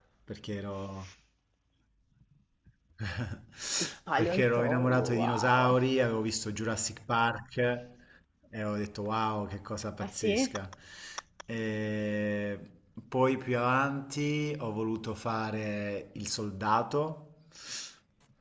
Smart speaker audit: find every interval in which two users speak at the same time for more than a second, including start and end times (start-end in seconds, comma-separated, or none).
4.2-5.8